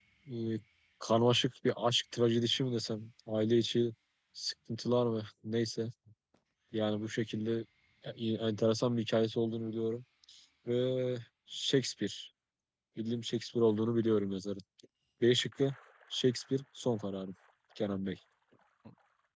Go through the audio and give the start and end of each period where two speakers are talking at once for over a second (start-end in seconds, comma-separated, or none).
none